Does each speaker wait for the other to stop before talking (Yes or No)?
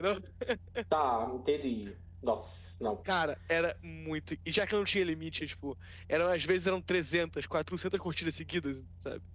Yes